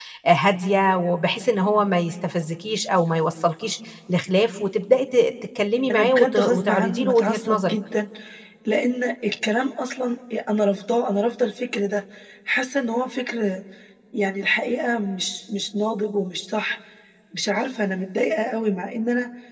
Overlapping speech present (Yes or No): Yes